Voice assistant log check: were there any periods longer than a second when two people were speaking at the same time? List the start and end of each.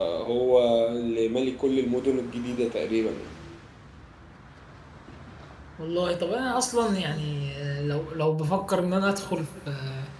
none

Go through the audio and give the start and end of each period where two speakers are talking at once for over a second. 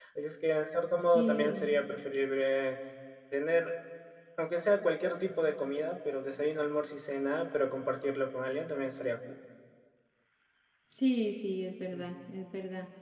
none

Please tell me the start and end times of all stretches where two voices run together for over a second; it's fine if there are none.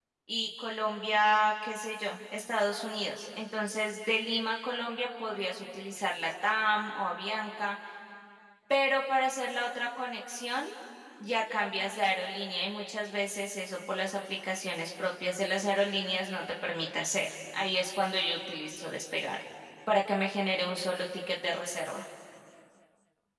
none

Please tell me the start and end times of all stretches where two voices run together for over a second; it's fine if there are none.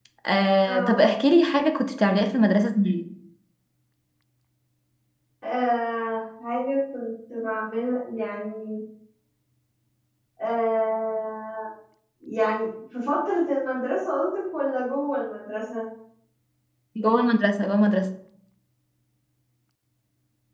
none

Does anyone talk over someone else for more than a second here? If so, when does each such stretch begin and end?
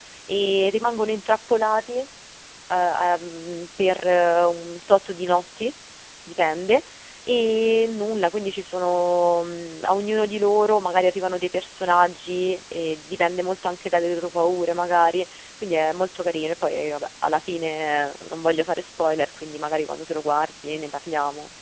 none

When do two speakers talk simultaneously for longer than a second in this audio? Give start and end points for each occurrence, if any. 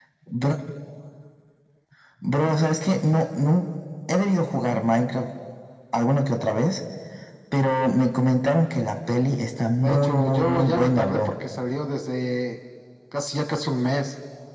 9.8-11.2

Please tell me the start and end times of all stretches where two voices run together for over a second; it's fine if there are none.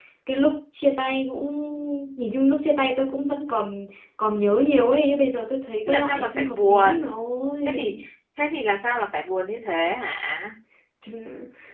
5.9-7.1

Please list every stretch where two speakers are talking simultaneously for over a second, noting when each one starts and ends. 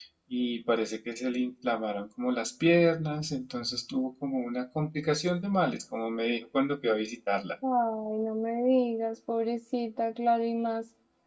none

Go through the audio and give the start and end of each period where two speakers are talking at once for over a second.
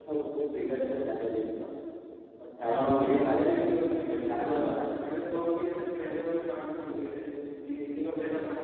2.6-4.9

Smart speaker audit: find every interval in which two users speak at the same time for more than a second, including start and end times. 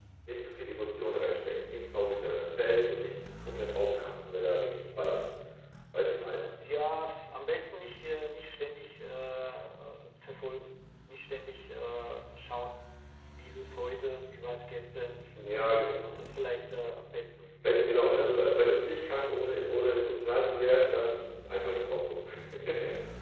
none

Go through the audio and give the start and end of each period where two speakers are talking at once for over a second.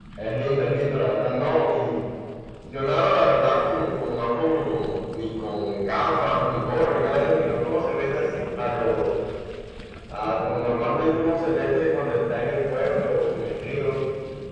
none

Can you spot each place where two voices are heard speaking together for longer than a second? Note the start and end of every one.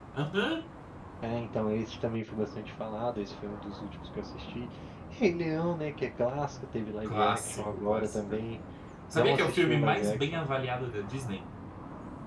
7.0-8.3, 9.1-10.4

